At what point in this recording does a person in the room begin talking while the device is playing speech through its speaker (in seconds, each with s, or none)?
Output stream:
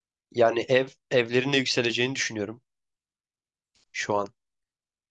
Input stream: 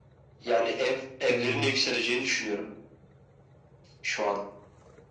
1.3 s